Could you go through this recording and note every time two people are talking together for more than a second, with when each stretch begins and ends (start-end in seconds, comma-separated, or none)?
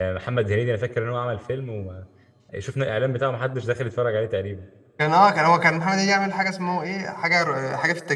none